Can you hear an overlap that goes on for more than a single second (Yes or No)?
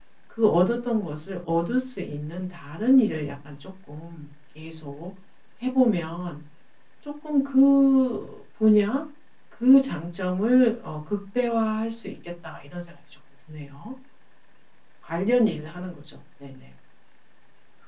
No